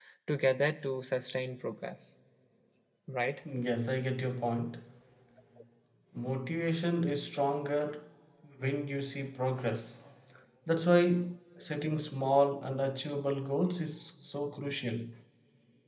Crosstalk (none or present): none